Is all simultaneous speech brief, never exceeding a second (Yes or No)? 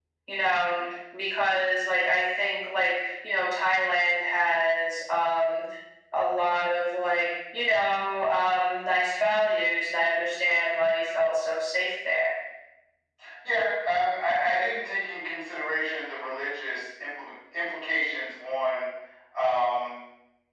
Yes